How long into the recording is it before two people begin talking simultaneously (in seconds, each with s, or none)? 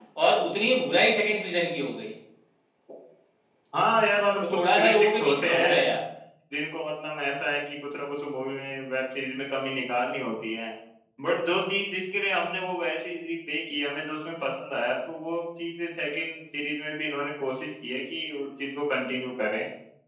4.4 s